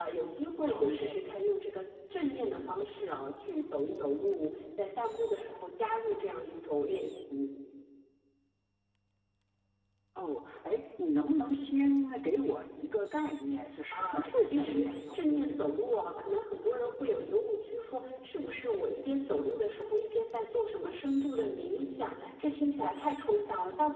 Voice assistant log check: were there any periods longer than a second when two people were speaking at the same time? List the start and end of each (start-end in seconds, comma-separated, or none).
13.9-15.5